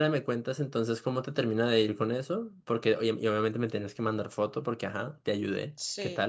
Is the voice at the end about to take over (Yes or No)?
Yes